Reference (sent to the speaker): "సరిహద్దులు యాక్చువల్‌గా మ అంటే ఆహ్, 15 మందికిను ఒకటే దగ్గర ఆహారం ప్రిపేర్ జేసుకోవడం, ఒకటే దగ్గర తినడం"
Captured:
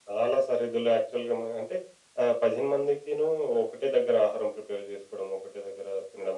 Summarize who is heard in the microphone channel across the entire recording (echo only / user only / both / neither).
echo only